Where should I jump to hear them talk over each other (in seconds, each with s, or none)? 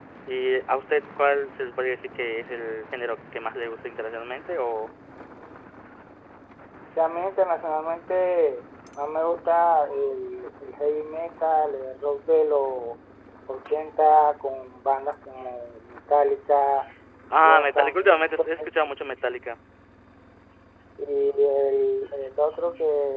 17.4 s